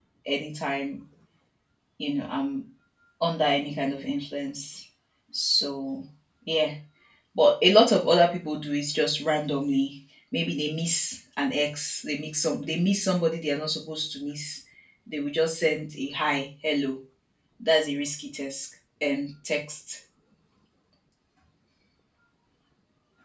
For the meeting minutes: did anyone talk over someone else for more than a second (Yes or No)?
No